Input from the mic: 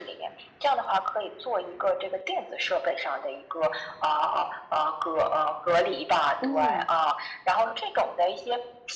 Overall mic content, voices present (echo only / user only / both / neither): both